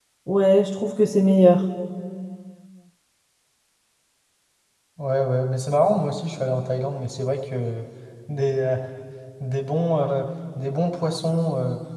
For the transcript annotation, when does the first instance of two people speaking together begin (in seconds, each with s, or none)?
none